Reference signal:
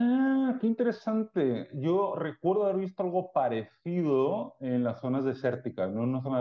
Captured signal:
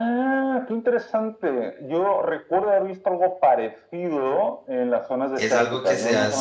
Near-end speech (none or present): present